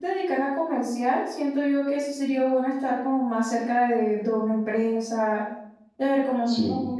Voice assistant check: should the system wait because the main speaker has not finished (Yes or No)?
Yes